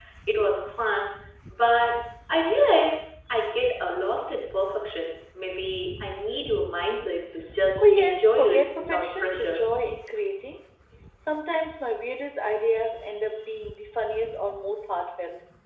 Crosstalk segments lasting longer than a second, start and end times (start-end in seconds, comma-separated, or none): 7.8-9.6